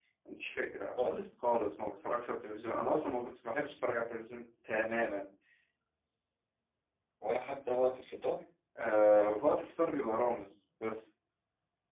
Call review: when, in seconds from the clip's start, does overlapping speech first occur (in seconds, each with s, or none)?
none